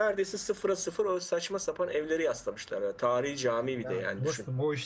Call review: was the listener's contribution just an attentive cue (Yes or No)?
No